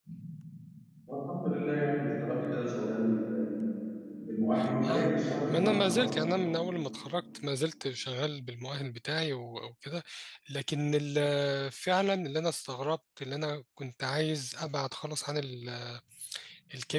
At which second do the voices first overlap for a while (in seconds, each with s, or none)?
4.8 s